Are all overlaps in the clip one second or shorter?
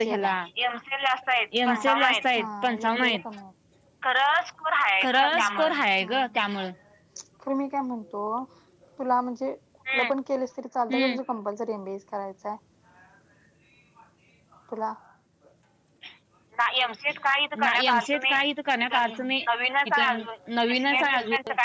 No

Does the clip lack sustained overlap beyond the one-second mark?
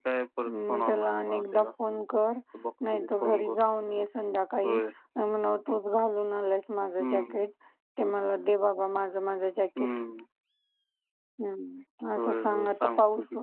No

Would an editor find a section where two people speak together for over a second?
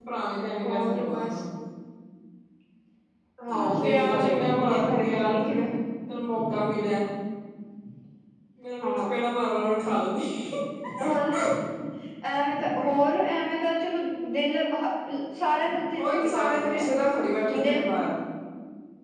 Yes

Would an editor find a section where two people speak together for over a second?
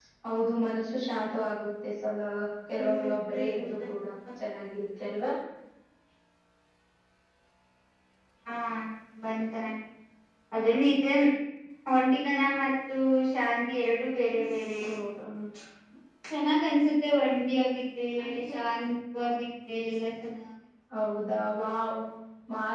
No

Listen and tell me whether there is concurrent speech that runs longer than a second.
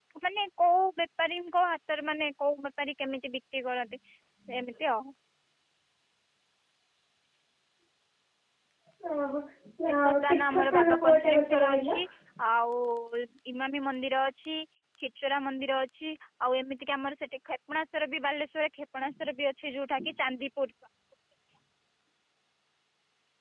Yes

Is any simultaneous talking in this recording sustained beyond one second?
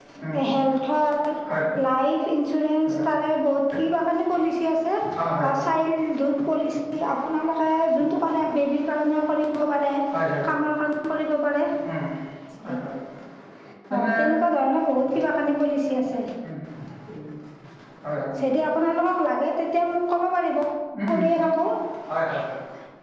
No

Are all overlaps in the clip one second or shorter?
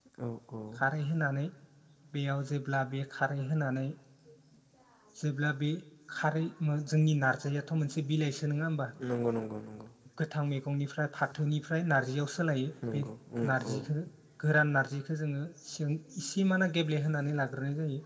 Yes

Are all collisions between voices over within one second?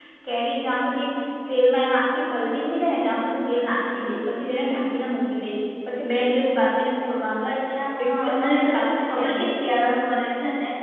No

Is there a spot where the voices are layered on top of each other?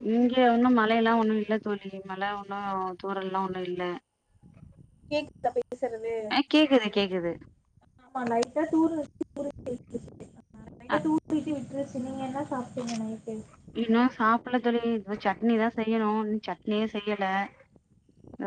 No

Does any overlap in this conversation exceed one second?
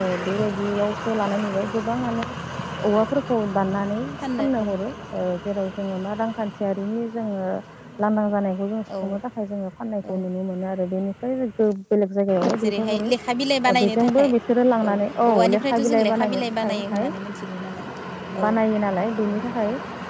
Yes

